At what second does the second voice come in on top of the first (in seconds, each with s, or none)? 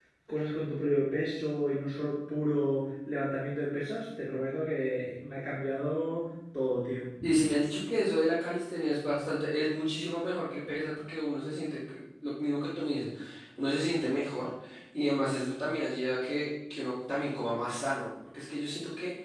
none